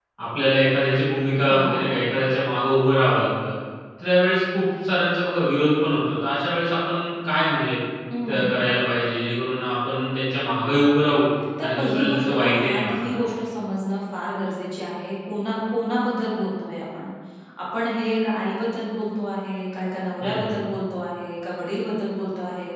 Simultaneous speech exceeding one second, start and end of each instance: 11.6-13.2

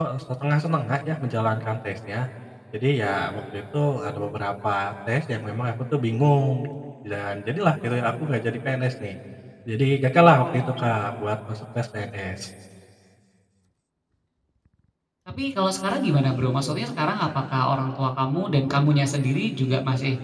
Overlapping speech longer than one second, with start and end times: none

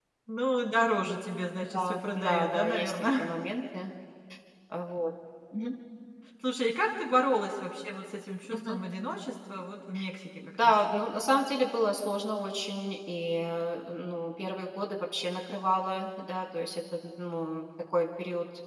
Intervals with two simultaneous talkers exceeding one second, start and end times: 1.4-3.4

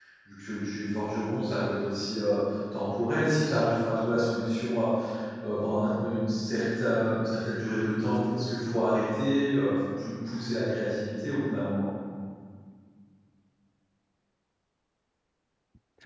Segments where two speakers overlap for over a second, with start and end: none

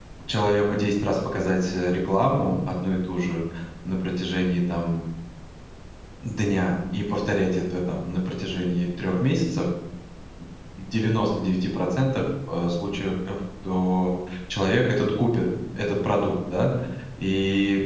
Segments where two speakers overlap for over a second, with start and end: none

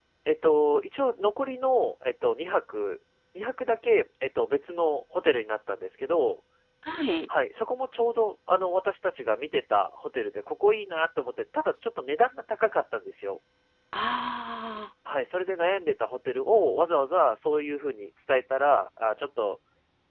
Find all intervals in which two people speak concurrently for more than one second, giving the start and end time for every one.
none

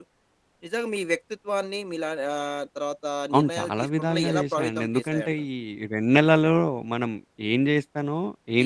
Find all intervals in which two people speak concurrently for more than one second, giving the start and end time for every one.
3.3-5.3

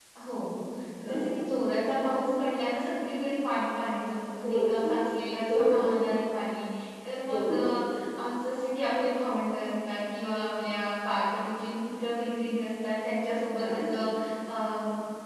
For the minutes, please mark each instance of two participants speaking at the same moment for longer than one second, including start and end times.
none

